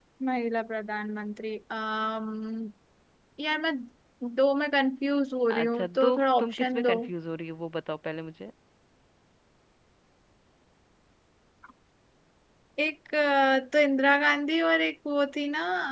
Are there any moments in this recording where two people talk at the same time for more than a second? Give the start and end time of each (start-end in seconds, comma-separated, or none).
5.5-6.9